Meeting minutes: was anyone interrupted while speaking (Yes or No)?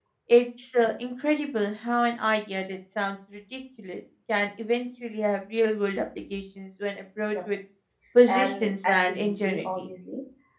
Yes